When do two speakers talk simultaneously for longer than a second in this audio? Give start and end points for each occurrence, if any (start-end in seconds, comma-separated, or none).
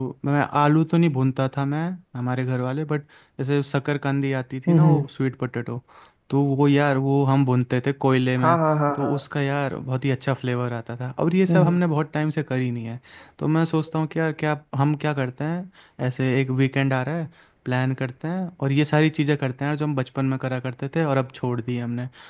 none